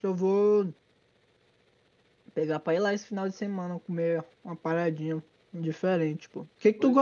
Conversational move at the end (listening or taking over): listening